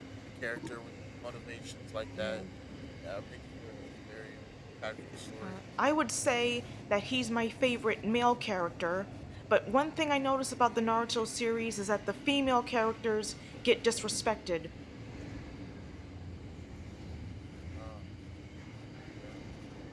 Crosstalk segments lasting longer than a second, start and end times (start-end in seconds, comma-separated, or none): none